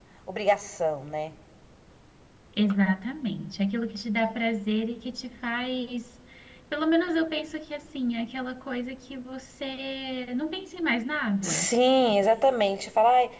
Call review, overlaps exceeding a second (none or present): none